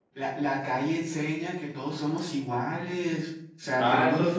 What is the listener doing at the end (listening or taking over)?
taking over